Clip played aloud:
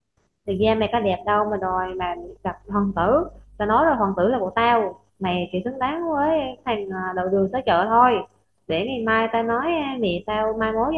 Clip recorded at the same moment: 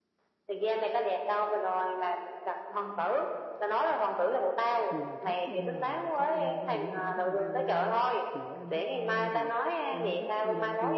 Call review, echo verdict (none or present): present